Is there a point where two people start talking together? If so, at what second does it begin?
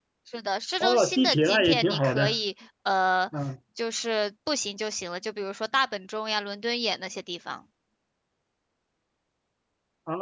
0.8 s

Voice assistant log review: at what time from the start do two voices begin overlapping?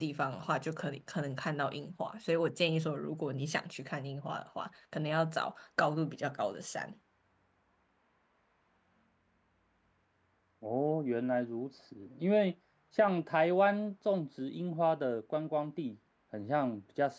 none

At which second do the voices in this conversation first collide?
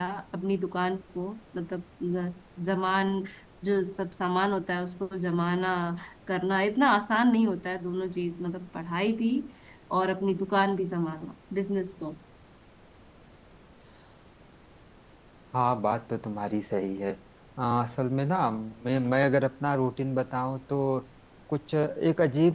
none

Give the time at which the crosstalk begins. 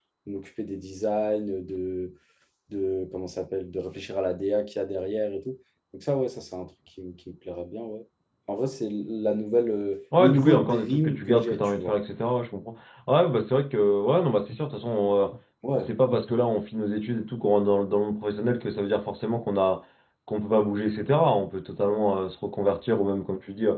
10.2 s

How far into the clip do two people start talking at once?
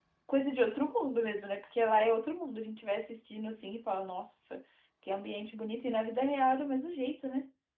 none

